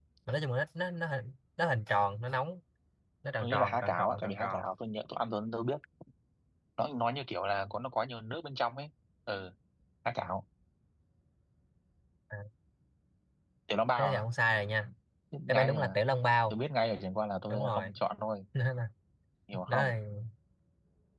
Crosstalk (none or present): present